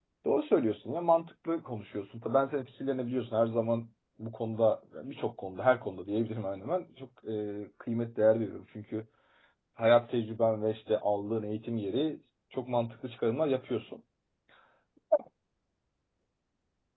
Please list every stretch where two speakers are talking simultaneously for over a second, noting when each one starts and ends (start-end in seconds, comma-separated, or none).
none